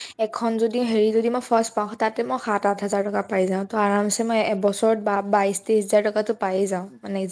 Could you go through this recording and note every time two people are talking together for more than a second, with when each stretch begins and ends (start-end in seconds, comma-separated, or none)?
none